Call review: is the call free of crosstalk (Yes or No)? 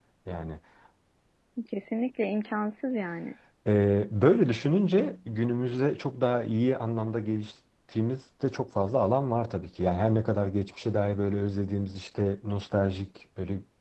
Yes